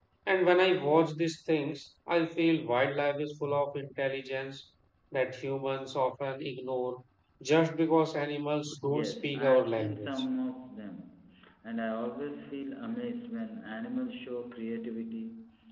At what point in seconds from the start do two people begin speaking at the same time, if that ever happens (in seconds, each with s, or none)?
8.9 s